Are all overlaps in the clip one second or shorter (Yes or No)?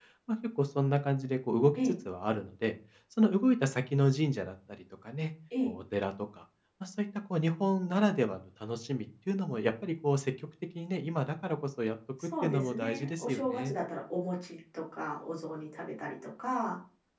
No